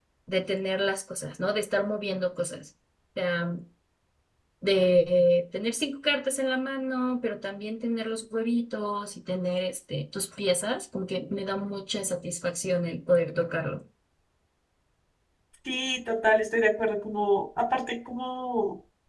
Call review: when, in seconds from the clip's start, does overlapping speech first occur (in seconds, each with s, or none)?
none